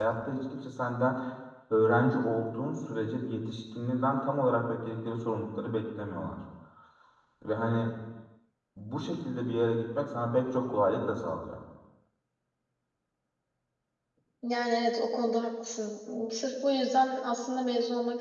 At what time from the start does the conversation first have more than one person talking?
none

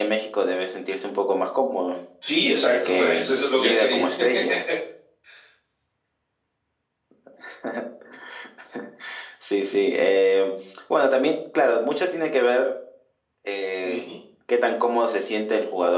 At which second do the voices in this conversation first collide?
3 s

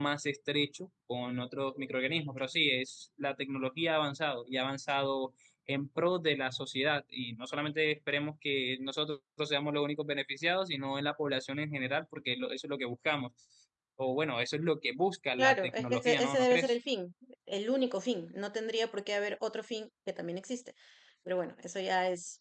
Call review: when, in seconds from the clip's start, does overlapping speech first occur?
15 s

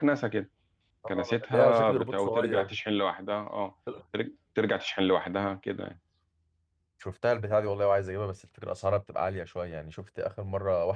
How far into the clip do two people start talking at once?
1 s

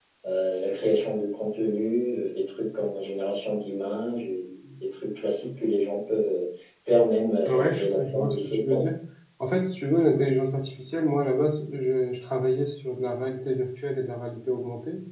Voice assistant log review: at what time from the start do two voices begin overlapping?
7 s

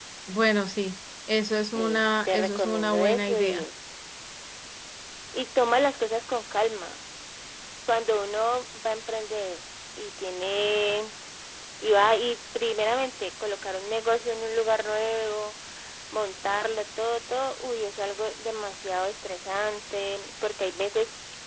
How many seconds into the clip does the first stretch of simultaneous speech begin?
2 s

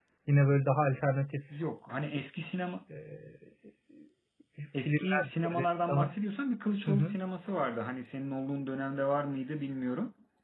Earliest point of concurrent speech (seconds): 5 s

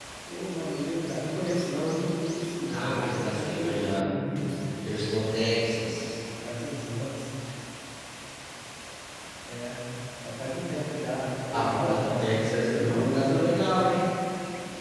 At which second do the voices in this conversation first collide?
3 s

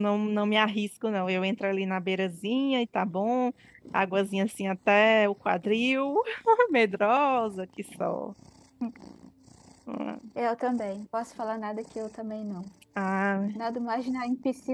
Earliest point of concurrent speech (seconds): none

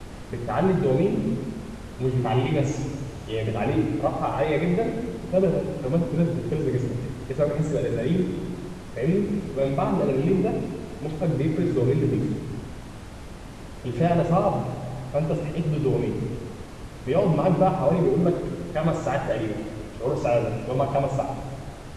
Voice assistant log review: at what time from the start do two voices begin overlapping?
none

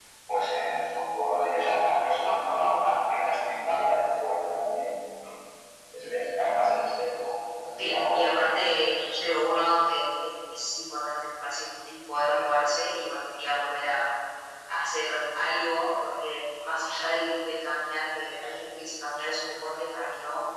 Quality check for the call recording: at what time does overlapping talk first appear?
8 s

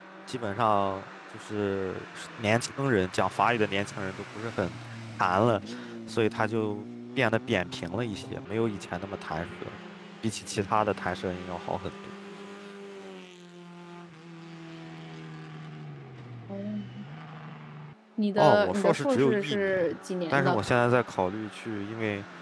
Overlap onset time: 18 s

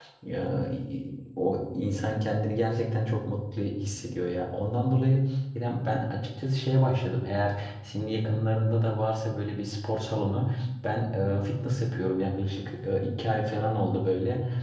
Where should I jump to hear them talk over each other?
none

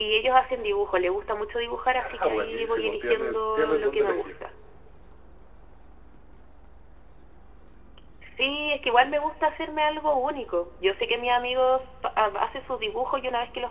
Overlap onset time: 2 s

